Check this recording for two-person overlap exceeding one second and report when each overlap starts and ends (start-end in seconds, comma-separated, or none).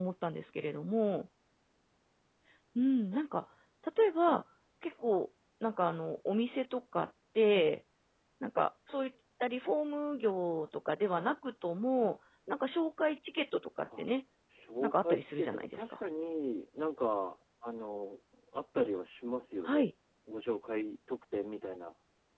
14.8-16.0